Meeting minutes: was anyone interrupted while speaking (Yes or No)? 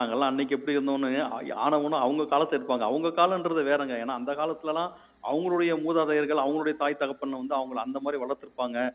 No